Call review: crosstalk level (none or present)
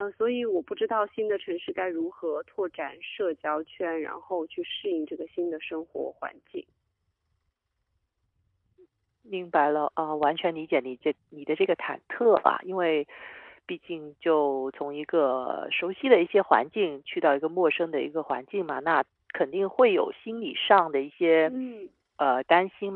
none